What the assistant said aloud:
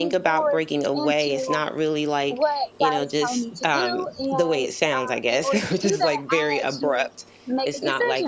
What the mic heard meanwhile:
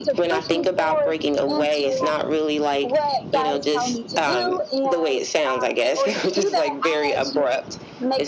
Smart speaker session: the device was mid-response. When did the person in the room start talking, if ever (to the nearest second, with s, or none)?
none